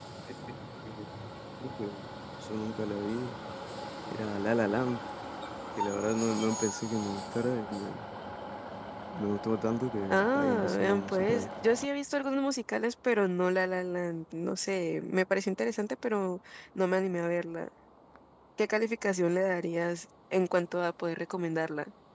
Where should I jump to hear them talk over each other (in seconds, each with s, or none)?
10.1 s